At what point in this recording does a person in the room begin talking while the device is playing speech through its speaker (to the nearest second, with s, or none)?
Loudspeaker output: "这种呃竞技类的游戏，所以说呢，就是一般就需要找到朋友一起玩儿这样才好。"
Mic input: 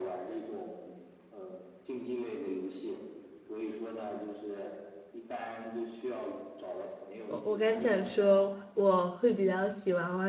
7 s